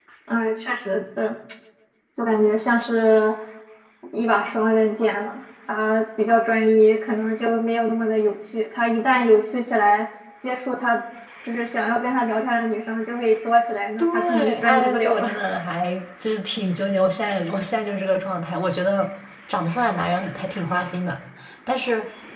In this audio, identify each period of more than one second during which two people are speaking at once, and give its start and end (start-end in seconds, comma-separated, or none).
14.0-15.4